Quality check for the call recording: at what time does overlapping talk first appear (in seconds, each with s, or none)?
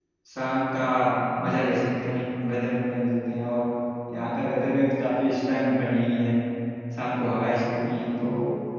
none